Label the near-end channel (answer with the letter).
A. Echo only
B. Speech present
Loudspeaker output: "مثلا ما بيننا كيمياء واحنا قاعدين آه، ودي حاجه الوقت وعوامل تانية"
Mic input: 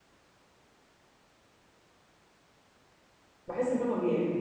B